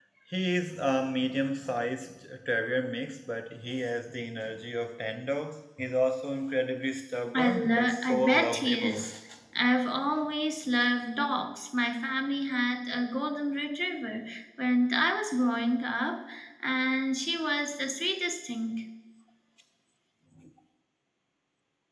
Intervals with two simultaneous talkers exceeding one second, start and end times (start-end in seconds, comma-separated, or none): 7.3-8.9